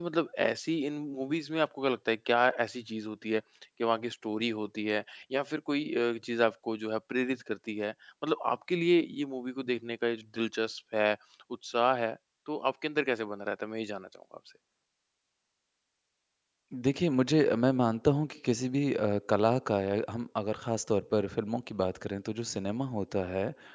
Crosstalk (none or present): none